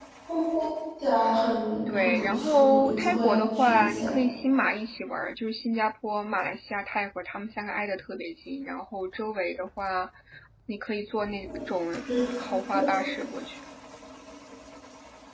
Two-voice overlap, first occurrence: 1.9 s

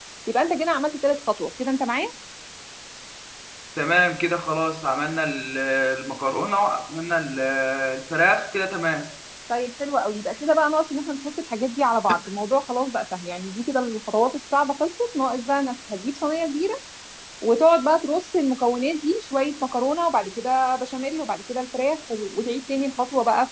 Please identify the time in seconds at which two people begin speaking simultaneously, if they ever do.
none

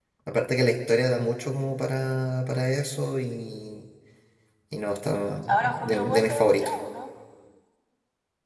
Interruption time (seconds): 5.5 s

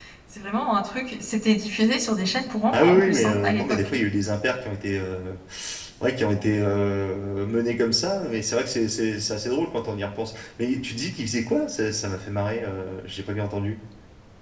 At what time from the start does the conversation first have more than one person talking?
2.7 s

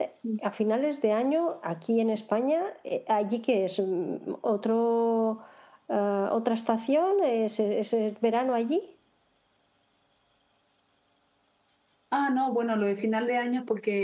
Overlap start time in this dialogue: none

